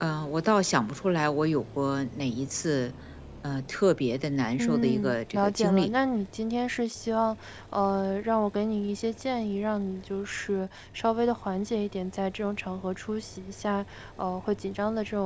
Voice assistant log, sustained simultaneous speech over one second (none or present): present